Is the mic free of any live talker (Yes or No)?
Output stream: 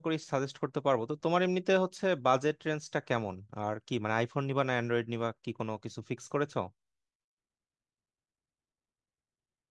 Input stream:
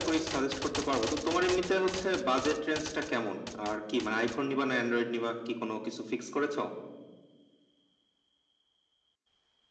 Yes